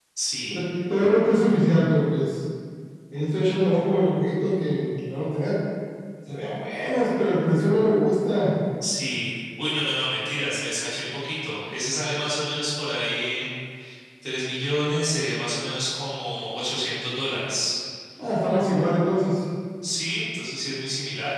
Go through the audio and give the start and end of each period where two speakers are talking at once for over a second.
none

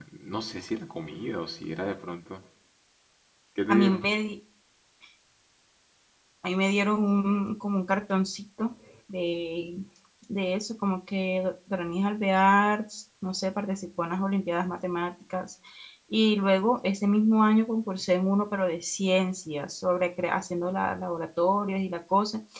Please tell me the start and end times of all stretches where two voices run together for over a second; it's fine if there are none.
none

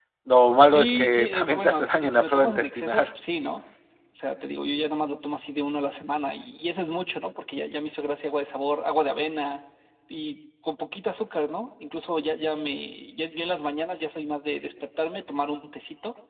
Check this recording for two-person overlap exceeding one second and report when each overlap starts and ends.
0.7-3.1

